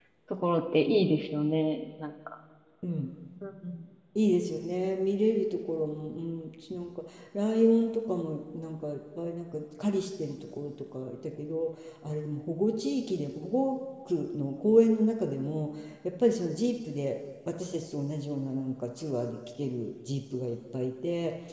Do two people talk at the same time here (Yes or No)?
No